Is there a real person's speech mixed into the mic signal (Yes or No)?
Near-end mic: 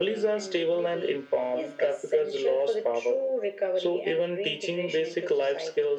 No